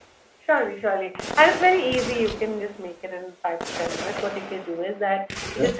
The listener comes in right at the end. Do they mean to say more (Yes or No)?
No